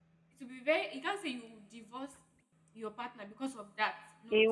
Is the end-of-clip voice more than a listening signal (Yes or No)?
Yes